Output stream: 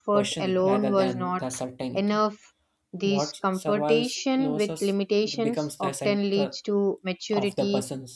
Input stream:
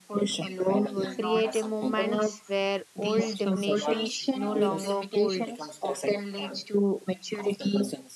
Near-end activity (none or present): present